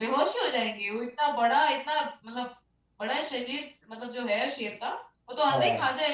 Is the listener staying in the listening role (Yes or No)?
Yes